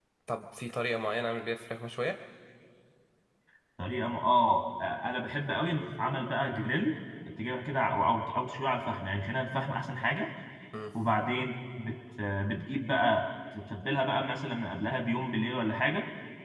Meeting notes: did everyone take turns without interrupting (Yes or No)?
Yes